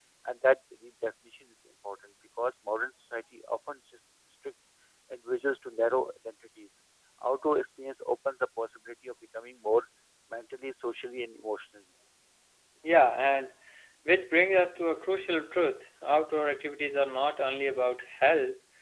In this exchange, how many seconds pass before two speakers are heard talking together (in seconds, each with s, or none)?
none